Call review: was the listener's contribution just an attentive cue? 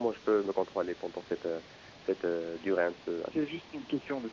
No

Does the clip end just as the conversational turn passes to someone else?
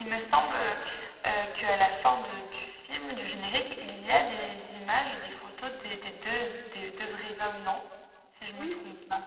Yes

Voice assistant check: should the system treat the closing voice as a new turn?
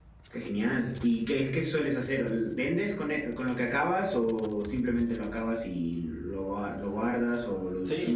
Yes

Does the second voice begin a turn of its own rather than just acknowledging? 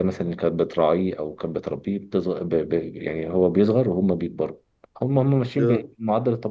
No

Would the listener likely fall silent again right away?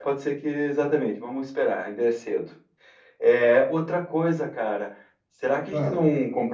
Yes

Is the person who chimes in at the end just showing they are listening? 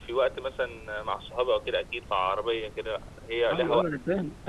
No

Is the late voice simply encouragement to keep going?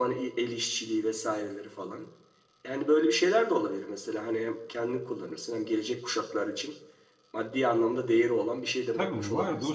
No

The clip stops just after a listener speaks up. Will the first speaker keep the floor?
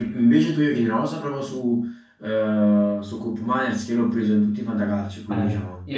No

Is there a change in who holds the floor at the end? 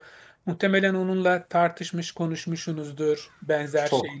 No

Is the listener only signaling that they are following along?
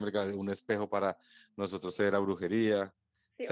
No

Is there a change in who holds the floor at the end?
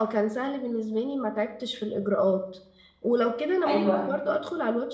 No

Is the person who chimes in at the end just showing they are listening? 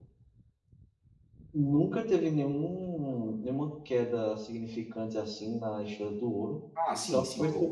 No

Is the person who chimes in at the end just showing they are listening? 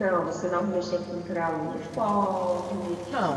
No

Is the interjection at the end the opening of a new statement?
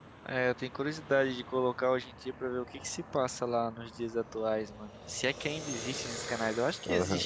Yes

